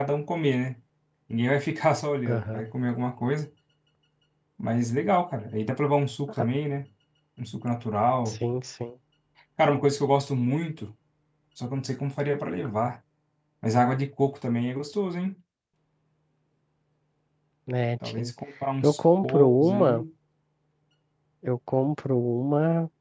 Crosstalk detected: Yes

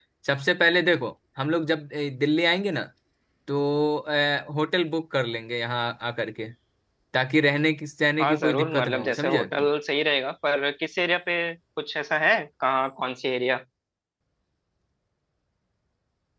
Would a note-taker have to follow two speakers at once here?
Yes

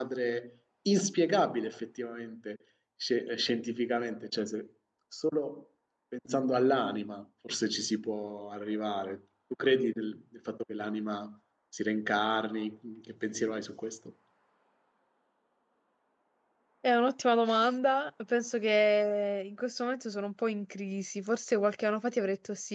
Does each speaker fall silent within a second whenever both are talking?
Yes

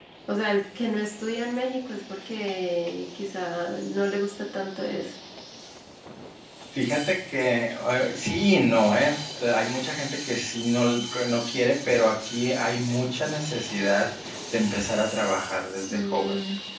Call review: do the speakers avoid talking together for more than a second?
Yes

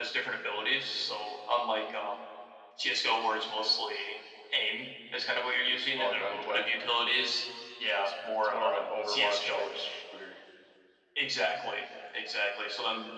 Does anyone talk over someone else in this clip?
Yes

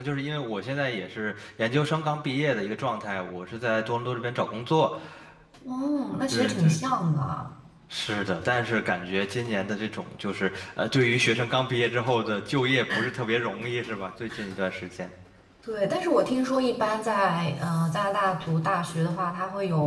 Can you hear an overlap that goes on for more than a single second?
No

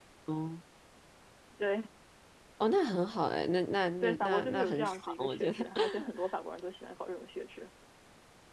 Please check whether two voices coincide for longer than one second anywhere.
Yes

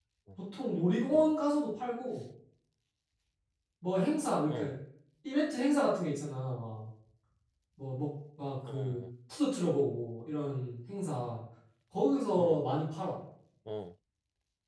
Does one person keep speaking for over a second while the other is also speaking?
No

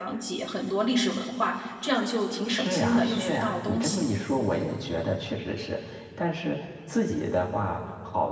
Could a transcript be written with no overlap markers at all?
No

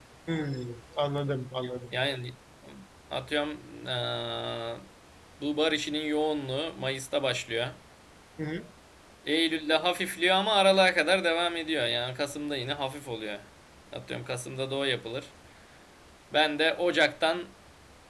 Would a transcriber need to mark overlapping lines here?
No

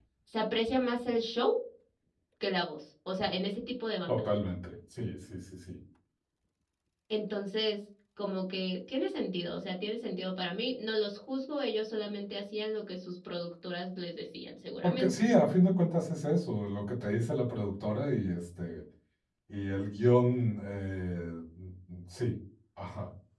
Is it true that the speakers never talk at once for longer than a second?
Yes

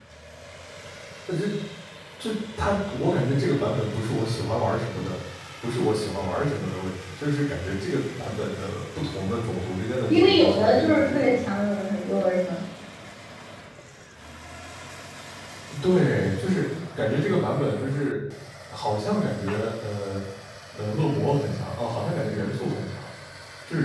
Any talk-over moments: Yes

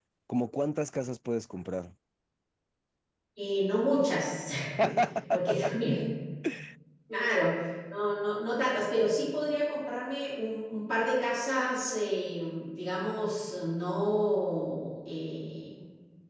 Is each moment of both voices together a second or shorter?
Yes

